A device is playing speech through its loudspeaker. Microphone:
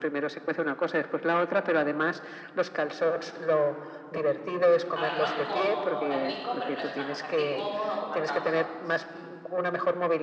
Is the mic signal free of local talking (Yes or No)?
No